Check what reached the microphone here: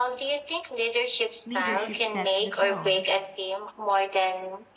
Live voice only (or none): leadership sets the tone,